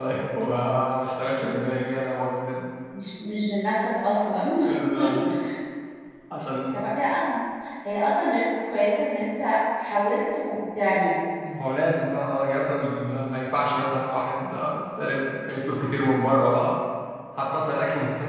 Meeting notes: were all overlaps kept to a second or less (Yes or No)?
Yes